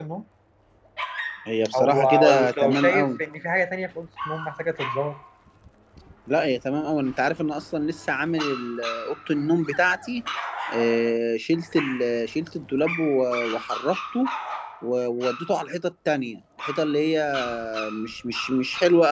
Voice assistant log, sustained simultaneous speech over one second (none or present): present